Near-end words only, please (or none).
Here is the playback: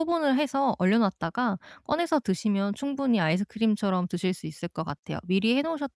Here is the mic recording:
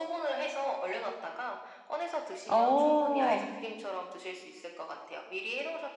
어.